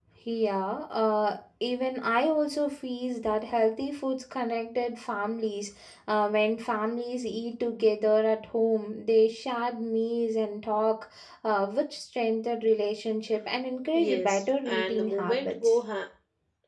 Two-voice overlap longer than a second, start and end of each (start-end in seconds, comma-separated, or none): 13.9-15.8